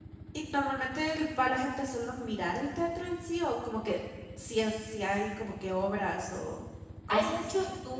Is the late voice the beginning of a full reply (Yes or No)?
Yes